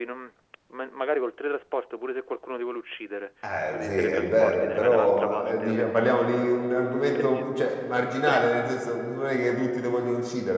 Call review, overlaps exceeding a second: present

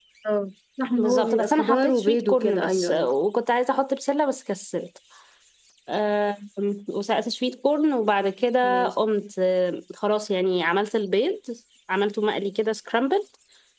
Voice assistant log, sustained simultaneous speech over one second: present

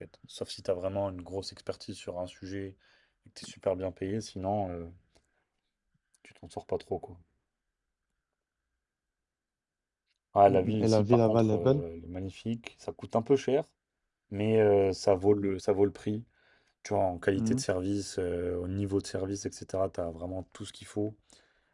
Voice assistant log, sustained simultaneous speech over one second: present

